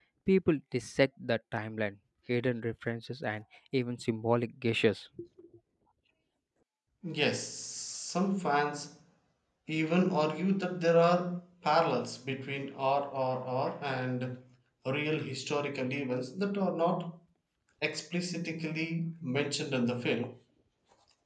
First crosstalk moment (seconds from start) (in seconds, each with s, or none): none